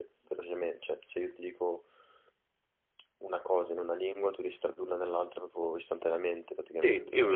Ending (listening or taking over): taking over